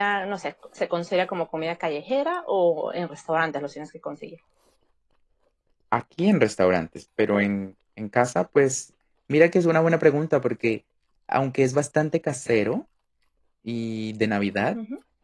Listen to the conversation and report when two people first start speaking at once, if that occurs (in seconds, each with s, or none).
none